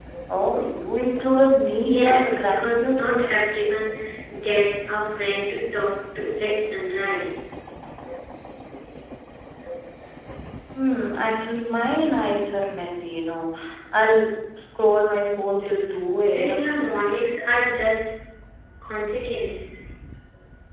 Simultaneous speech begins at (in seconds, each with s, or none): 1.8 s